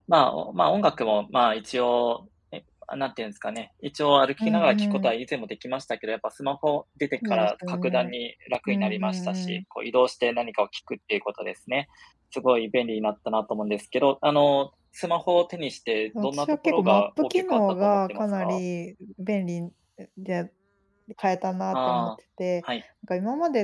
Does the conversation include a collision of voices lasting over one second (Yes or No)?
Yes